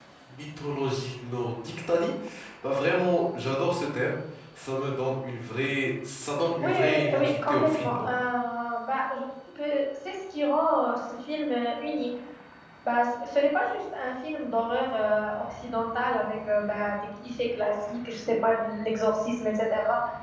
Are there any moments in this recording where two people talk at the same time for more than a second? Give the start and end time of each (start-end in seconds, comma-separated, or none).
6.6-8.1